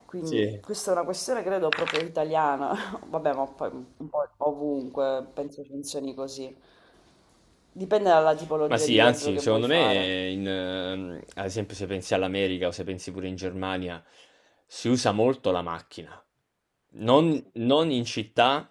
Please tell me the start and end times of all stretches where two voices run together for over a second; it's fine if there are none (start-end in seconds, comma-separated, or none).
8.7-10.1